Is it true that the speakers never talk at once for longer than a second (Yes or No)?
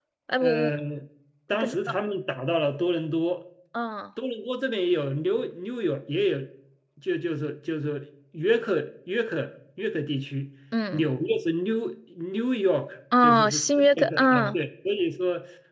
No